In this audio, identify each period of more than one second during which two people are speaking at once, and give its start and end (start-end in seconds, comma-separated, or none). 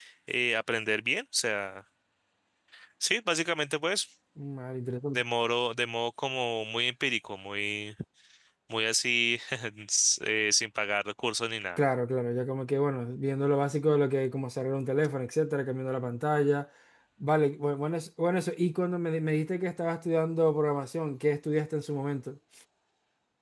none